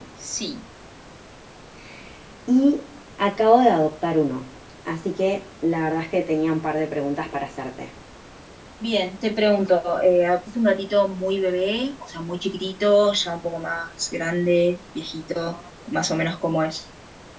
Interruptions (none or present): none